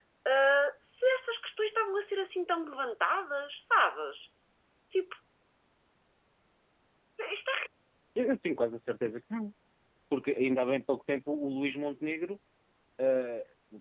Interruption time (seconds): none

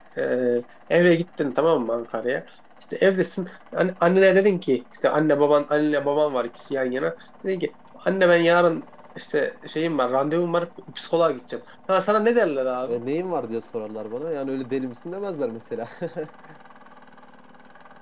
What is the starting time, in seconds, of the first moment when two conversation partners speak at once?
none

